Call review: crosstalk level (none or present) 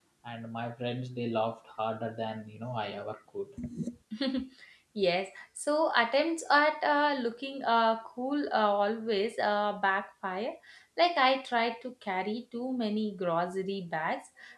none